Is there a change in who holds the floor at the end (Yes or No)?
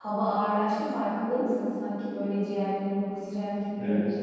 Yes